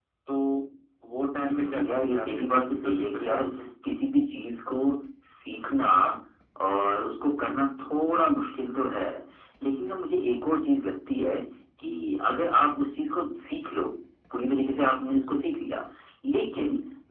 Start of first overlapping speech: 1.4 s

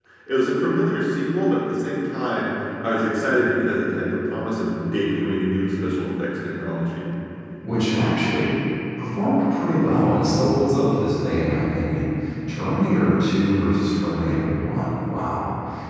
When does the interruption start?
none

